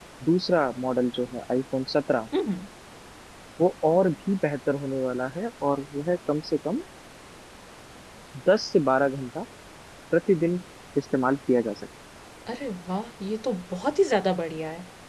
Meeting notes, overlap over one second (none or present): none